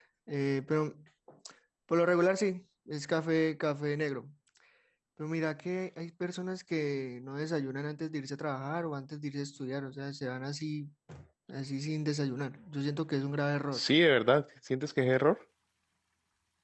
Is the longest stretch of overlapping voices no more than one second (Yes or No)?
Yes